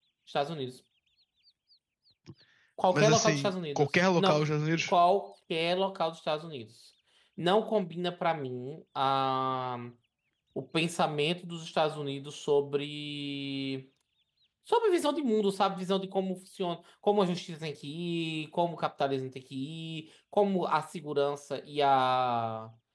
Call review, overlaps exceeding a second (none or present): present